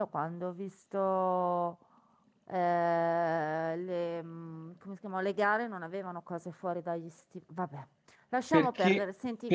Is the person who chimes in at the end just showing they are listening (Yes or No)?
No